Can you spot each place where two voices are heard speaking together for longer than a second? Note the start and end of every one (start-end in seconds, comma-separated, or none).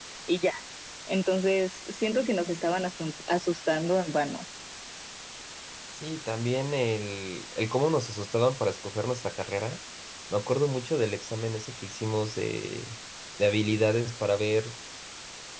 none